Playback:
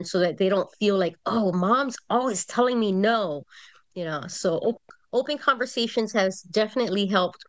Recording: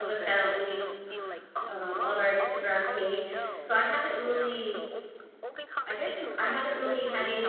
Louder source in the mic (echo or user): user